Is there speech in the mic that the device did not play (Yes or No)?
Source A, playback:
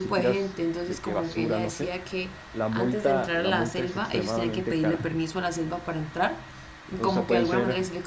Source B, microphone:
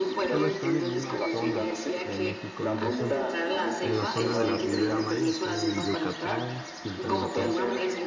Yes